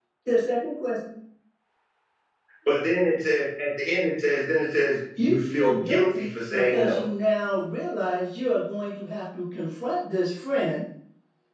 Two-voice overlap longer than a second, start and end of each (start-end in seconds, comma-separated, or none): 5.2-7.0